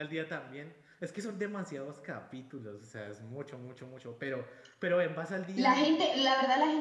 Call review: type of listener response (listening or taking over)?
taking over